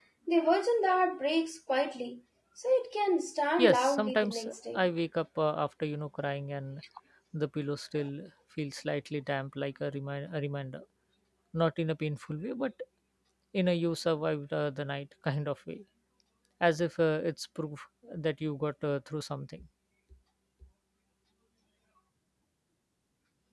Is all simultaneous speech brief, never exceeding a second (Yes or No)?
No